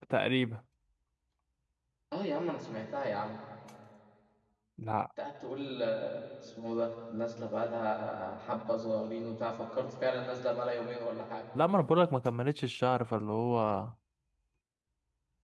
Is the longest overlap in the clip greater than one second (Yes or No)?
No